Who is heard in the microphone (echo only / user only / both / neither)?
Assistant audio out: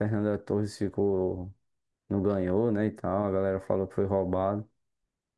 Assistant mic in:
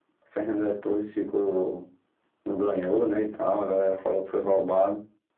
echo only